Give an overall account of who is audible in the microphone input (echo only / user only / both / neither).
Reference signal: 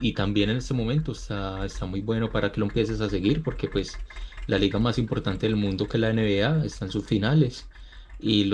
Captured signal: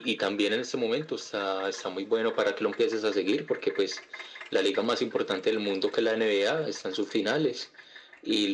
echo only